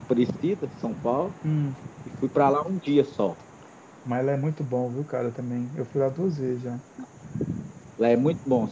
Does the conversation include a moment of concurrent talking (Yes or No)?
No